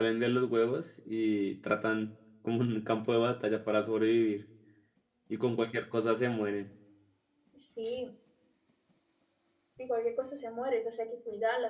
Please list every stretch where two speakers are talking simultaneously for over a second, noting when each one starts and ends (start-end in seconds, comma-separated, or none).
none